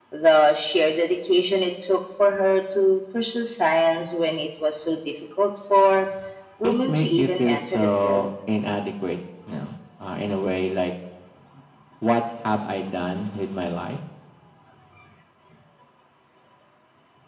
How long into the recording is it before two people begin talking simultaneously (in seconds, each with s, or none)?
6.6 s